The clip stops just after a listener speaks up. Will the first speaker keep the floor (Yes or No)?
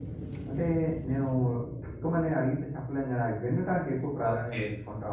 No